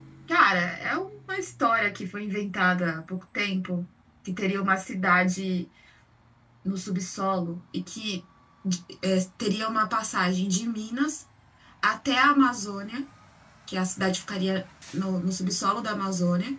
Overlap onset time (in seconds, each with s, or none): none